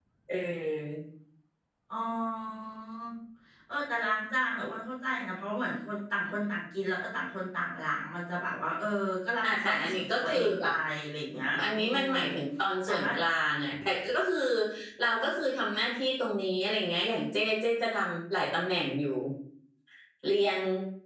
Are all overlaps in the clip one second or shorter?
No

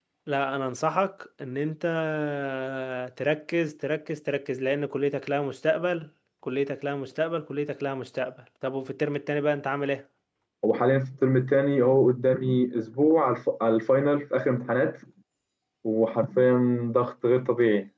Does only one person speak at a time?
Yes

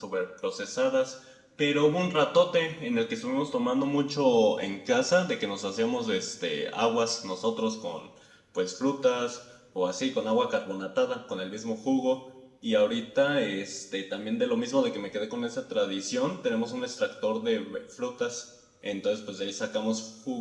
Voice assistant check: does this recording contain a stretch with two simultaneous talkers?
No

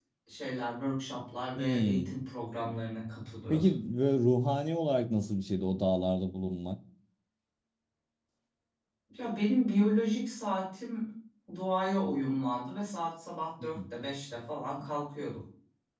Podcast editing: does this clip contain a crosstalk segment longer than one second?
No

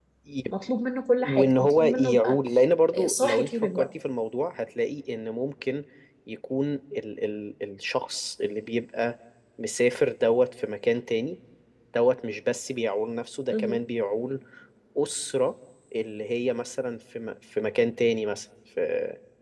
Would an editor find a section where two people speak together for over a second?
Yes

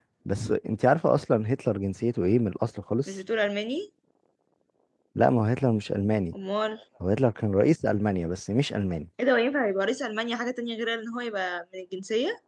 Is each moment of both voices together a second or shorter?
Yes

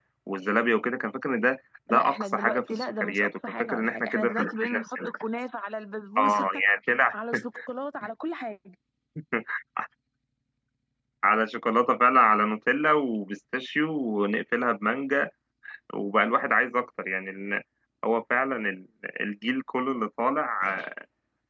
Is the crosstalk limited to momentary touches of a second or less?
No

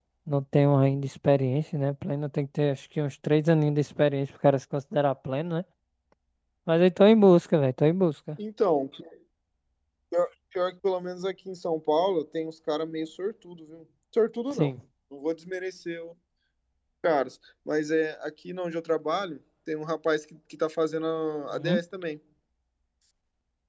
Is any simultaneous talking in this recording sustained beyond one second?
No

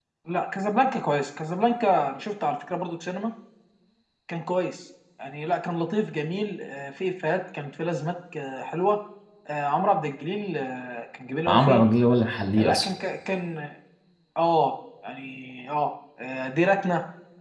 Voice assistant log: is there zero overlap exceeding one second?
Yes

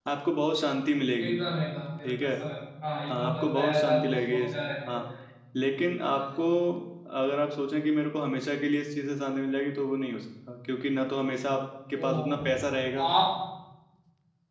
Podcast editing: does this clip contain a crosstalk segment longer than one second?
Yes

